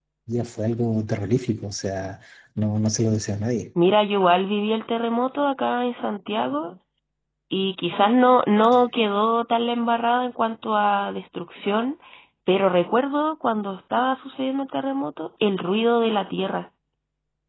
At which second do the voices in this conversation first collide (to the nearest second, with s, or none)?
none